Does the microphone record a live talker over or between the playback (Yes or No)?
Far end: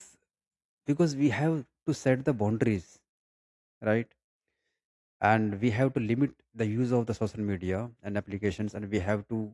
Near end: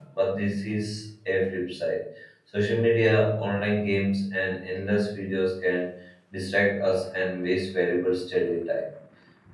Yes